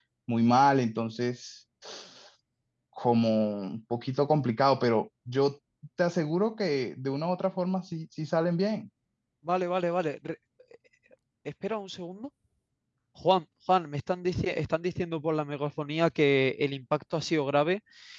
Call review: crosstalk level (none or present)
none